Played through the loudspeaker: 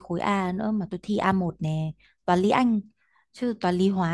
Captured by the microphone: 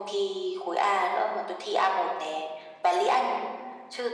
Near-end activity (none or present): none